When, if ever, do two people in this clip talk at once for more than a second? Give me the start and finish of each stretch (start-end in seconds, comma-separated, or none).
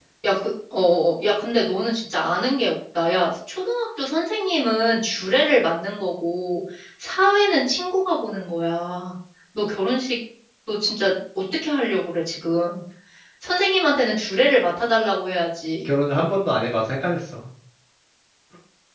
none